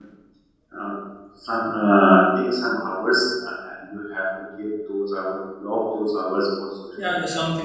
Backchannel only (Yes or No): No